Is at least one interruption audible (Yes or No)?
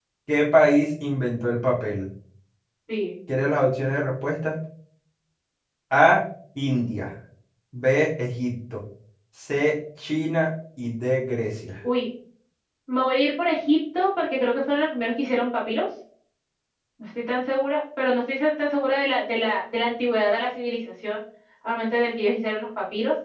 No